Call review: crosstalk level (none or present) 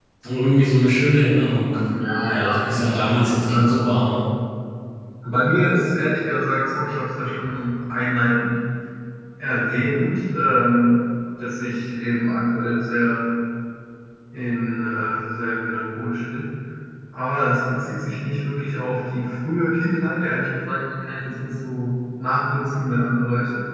present